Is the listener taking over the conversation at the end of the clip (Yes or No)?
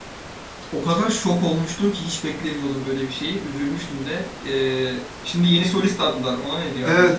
Yes